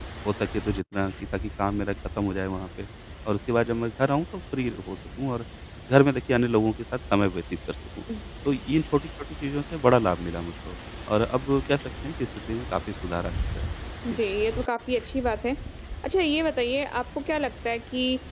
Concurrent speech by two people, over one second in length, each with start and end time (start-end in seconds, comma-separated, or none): none